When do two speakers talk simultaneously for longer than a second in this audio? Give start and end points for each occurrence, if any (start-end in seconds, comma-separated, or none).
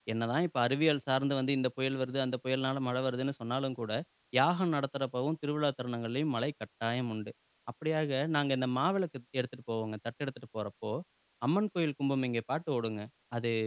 none